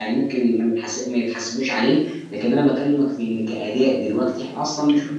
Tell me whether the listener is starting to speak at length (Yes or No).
Yes